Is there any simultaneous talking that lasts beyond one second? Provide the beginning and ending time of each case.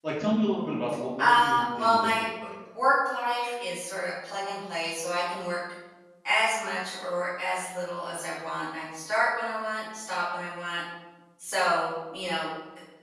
1.2-2.5

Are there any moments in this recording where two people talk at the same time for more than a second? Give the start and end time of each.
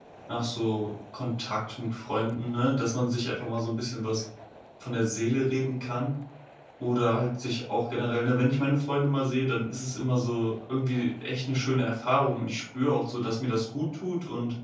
none

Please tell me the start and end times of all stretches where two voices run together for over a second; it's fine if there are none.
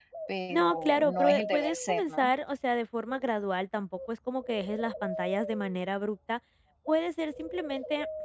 0.5-2.3

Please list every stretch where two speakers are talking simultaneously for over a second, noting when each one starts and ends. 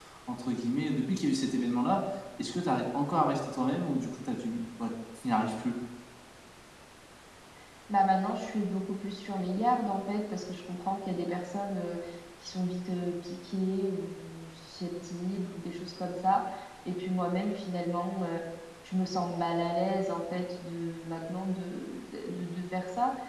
none

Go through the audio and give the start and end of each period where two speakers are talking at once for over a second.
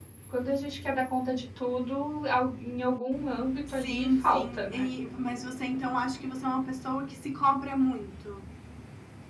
3.7-4.9

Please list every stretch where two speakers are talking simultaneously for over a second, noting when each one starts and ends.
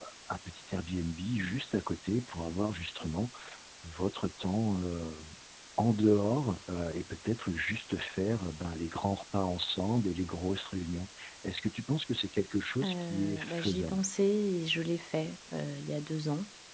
12.8-14.0

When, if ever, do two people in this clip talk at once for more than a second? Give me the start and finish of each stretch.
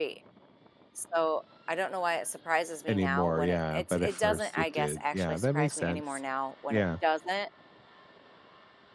2.9-6.2

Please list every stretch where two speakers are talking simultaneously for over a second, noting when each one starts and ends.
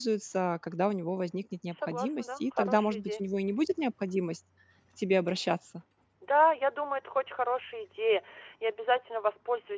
1.8-3.2

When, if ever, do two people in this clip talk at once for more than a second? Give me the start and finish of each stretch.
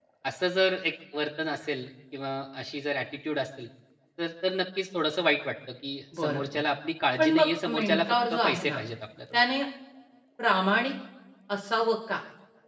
7.2-8.8

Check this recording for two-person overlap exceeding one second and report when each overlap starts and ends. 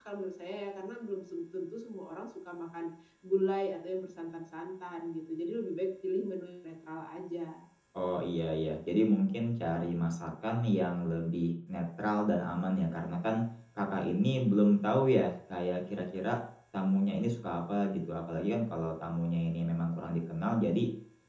none

